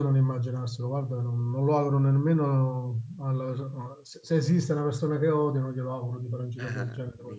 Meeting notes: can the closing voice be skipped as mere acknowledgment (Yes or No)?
No